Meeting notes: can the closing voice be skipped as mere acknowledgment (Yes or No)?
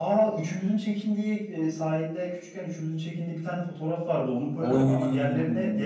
Yes